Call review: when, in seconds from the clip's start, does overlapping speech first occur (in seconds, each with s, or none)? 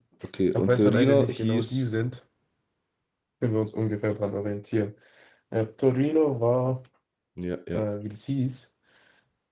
0.5 s